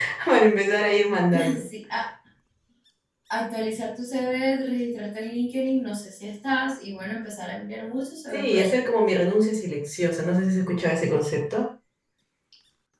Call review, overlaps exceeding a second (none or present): none